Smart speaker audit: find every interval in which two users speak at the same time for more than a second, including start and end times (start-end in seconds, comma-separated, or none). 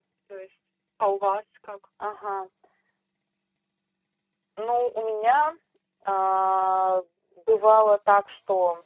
none